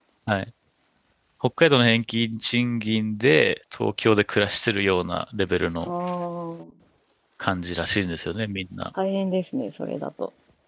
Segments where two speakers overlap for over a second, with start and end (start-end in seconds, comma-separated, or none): none